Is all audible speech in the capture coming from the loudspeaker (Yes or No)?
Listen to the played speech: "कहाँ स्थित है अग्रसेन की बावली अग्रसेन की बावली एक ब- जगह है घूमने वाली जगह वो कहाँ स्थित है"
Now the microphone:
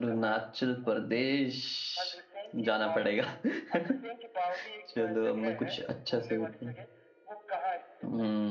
No